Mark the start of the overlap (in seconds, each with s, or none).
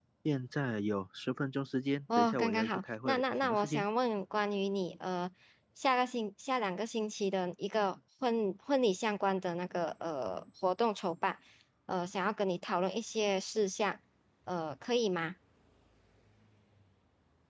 2.1 s